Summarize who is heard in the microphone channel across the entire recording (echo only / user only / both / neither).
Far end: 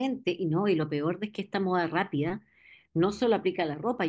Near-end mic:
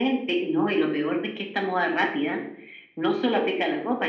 echo only